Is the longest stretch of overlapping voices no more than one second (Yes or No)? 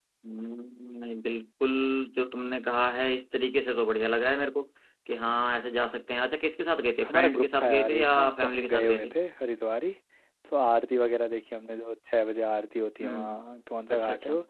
No